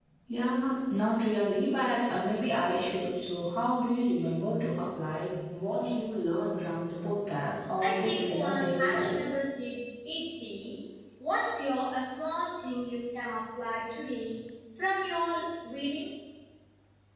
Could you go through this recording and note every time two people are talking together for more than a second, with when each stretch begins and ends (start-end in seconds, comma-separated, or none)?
7.8-9.2